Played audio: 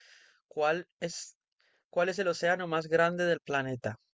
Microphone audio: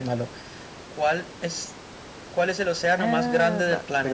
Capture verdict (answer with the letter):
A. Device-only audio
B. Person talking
B